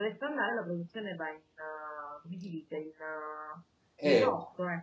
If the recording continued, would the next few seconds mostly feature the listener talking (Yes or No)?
Yes